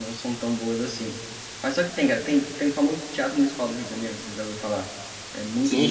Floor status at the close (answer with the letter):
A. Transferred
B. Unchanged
A